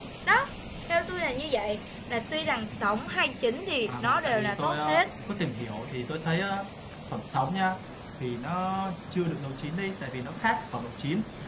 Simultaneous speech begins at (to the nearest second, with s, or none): 4 s